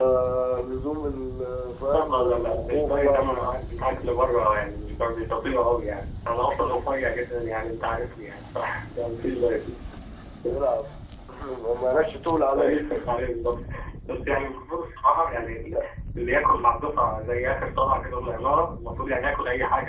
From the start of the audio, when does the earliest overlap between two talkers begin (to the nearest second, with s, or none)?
2 s